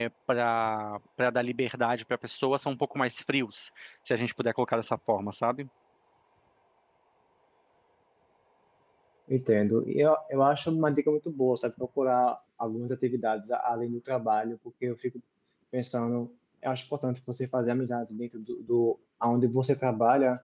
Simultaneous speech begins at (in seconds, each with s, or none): none